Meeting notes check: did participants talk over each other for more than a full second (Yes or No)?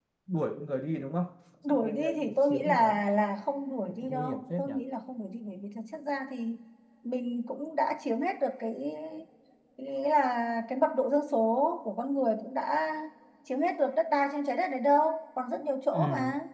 Yes